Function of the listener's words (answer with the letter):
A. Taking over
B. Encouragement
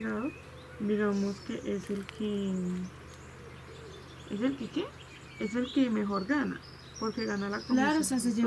A